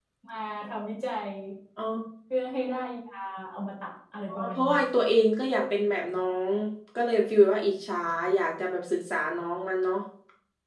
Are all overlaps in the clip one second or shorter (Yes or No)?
Yes